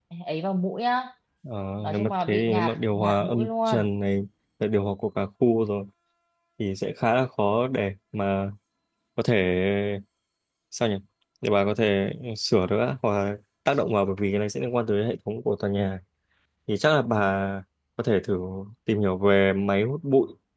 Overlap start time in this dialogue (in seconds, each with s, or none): 1.9 s